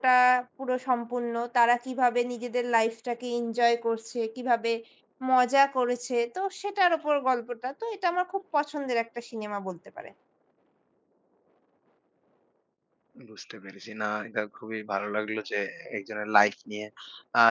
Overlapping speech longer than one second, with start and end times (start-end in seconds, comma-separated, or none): none